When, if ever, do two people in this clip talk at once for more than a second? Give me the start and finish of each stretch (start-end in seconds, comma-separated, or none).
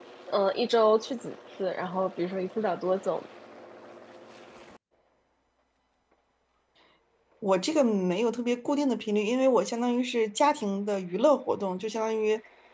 none